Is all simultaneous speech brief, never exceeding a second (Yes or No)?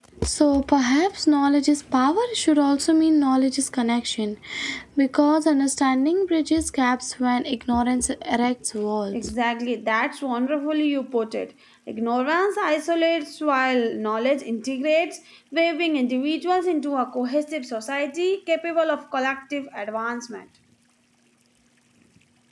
Yes